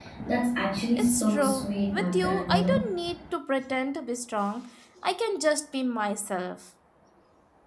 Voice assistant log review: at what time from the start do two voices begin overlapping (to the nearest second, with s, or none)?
1 s